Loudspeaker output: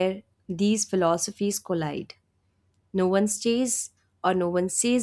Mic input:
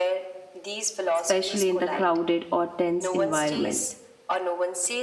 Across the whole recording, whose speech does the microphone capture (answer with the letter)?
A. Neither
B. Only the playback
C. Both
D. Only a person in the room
C